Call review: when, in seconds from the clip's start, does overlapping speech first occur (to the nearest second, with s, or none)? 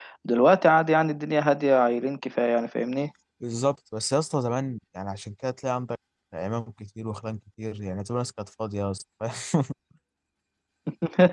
none